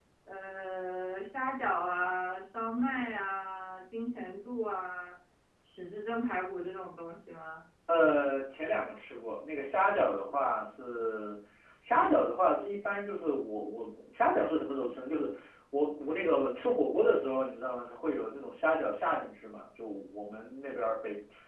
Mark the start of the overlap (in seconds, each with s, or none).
none